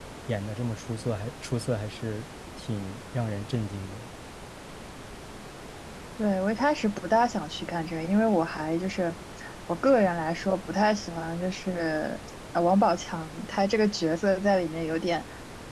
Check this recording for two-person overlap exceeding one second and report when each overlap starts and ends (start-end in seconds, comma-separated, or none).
none